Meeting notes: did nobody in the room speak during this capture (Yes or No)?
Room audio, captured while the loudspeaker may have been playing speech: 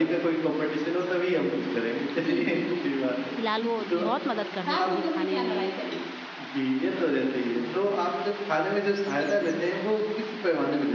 No